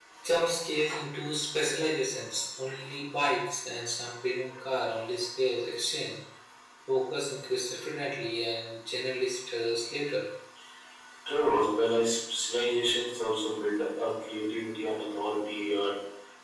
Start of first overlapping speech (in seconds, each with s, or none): none